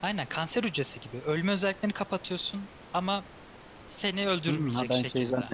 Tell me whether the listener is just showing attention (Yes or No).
No